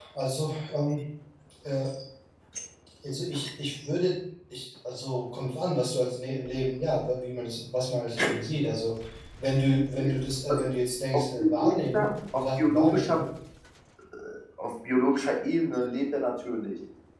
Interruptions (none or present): present